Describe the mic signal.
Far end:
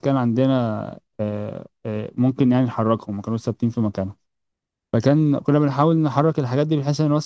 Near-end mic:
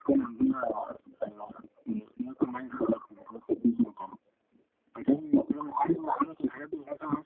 echo only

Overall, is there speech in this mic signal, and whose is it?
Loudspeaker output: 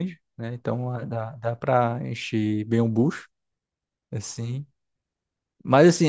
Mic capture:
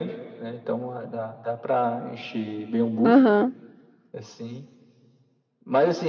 both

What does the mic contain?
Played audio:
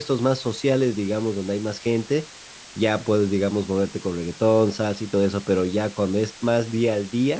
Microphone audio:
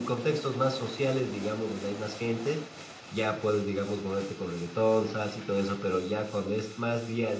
echo only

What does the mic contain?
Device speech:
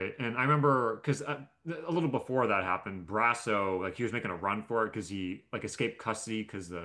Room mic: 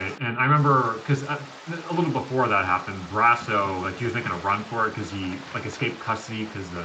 echo only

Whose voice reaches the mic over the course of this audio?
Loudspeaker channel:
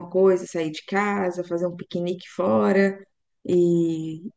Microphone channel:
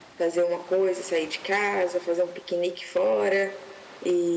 echo only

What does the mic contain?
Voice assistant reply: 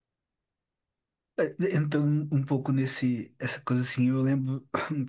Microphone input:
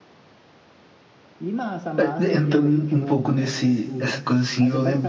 both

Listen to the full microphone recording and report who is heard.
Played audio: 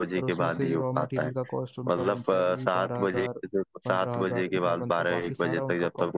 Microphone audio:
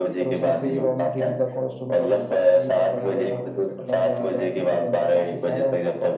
both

